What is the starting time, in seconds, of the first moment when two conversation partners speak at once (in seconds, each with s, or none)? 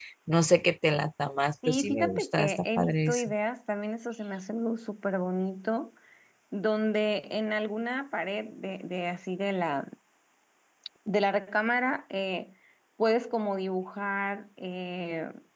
1.6 s